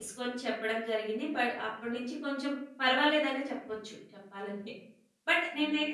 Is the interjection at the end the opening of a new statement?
No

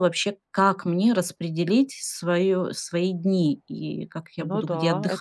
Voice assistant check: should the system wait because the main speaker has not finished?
No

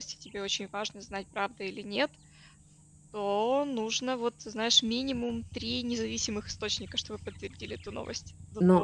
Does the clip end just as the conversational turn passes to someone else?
Yes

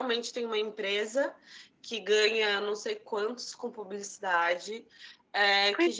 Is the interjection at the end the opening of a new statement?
No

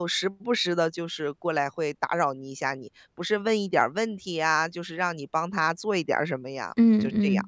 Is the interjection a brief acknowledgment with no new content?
No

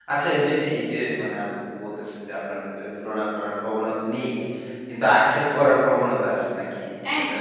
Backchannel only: No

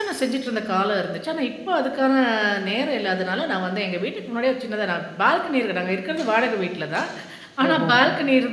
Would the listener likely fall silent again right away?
Yes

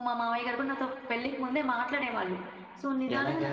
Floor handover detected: No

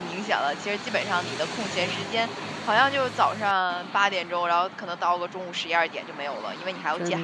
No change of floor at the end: Yes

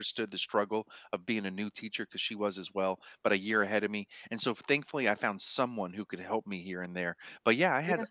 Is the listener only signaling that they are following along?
Yes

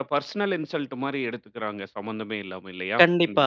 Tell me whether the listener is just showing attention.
No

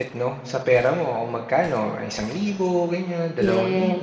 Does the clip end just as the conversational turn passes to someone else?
Yes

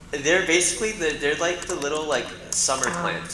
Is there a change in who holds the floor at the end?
No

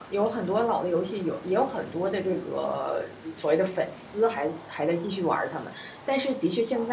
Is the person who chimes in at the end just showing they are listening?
Yes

